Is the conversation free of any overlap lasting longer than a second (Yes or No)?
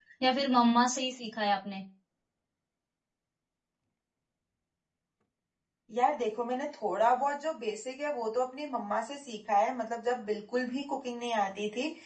Yes